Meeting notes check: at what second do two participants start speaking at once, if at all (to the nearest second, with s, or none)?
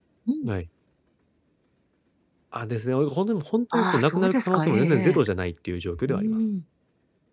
4 s